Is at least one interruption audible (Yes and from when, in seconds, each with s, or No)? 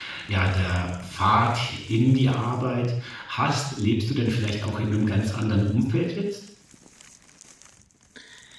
No